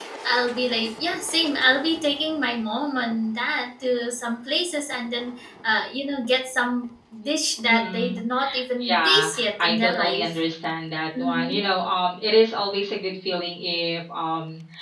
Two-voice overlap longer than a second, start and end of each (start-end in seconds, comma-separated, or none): 8.9-10.4